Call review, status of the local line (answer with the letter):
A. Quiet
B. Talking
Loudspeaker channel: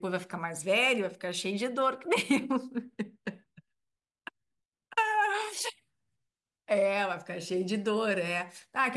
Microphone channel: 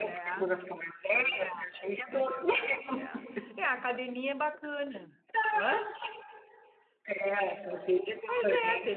B